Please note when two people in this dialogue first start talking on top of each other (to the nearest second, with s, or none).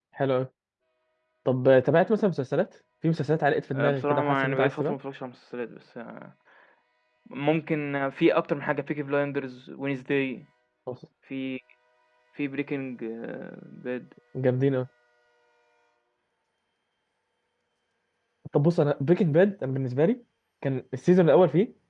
4 s